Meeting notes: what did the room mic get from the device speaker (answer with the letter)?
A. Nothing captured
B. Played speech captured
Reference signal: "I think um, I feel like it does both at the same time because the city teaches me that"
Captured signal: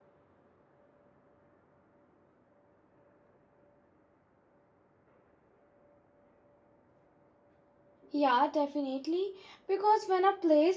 A